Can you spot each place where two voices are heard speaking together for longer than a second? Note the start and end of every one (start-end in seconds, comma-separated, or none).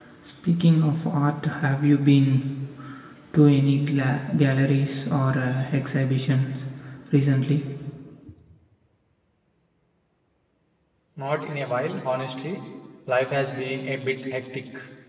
none